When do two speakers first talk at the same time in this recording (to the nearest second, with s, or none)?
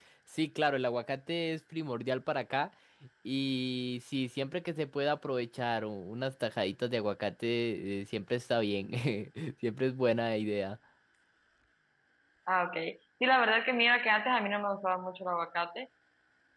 none